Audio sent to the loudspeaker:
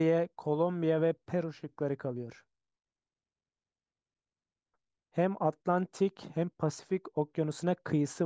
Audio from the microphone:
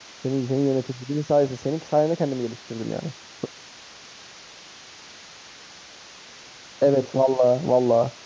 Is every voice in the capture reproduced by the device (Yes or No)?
No